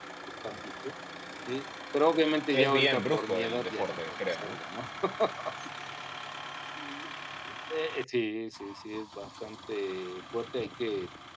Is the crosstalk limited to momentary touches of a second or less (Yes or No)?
No